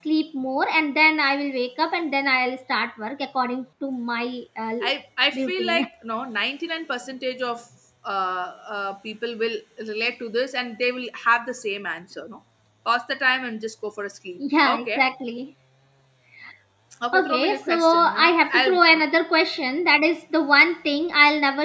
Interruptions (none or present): present